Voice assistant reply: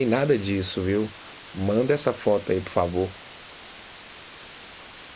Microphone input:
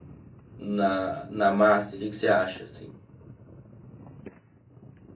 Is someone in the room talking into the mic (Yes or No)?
Yes